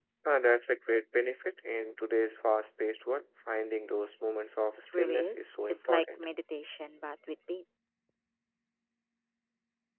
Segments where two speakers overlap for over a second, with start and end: 4.8-6.2

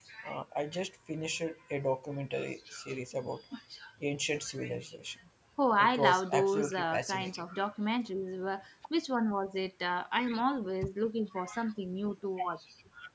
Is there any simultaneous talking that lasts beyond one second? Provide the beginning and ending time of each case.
5.8-7.4

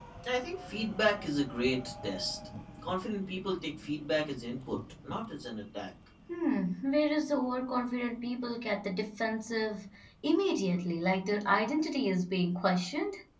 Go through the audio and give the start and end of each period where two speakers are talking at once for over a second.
none

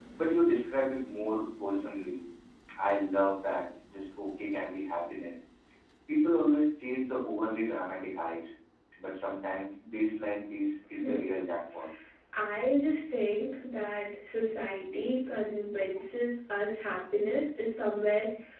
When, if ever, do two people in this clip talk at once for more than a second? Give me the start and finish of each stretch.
none

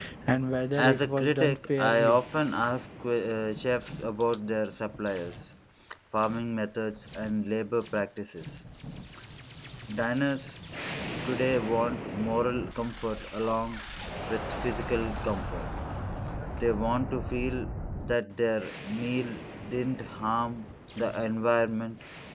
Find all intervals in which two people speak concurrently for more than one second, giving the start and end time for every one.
0.8-2.2

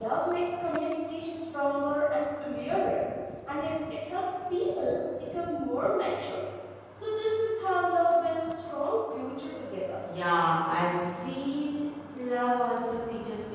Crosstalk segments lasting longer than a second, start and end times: none

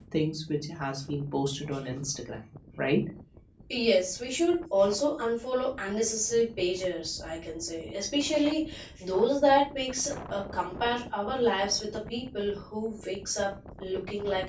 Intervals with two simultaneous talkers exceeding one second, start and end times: none

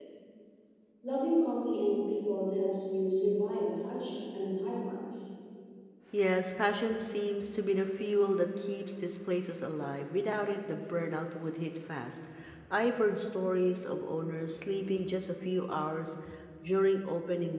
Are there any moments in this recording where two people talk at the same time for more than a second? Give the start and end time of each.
none

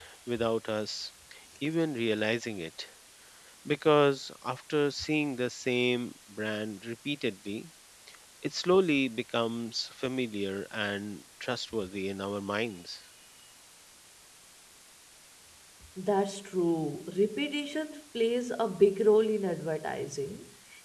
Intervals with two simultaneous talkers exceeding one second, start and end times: none

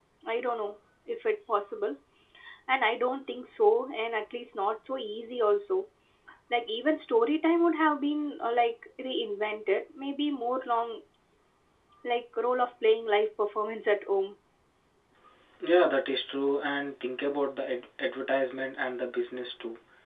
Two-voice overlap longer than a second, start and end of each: none

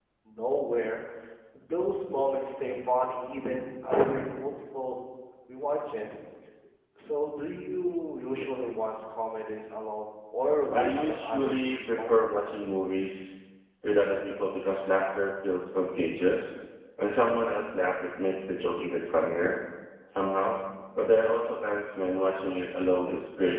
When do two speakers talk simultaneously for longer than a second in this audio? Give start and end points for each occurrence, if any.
10.7-12.1

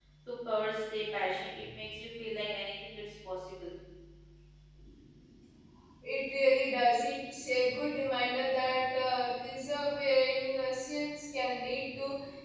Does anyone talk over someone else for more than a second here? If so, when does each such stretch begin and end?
none

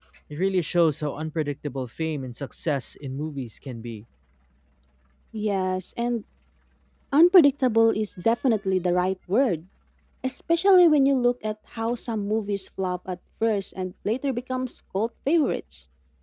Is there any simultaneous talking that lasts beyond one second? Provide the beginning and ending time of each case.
none

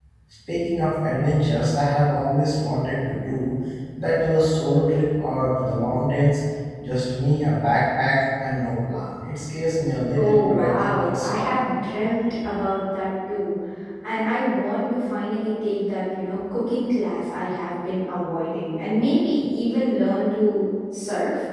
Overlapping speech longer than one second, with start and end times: 10.2-11.5

